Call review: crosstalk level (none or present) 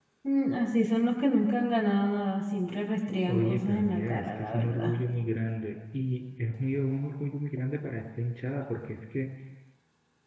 present